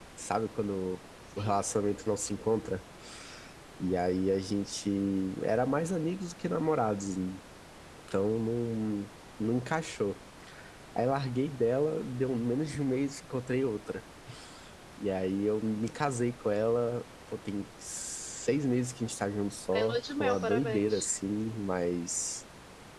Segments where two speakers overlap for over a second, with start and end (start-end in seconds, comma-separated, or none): 19.7-21.1